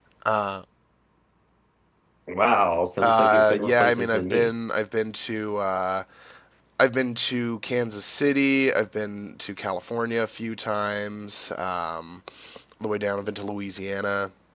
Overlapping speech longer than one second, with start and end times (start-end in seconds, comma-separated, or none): 3.0-4.5